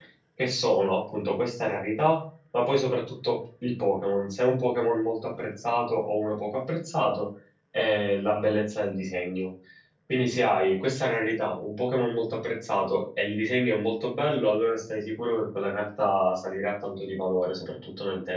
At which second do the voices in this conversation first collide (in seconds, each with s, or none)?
none